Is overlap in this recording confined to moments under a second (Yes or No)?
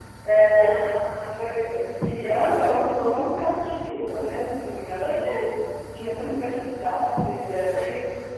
Yes